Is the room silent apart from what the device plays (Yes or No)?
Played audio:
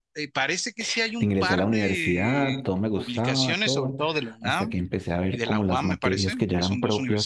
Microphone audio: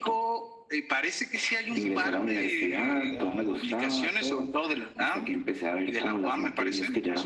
No